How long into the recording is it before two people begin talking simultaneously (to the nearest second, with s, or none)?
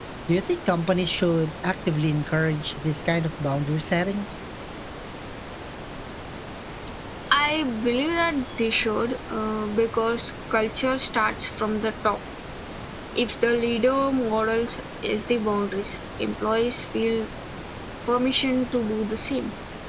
none